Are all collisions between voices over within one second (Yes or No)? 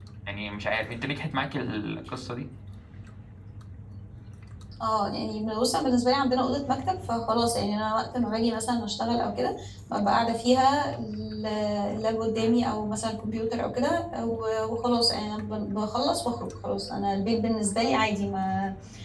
Yes